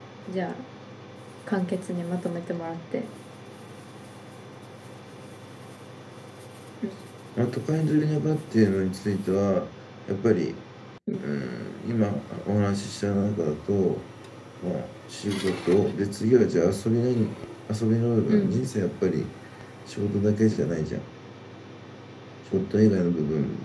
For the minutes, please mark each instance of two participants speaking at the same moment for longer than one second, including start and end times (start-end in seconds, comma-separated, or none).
none